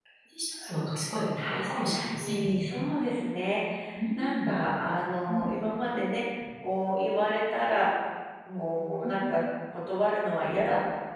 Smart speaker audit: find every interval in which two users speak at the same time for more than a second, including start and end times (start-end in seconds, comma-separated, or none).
1.4-2.7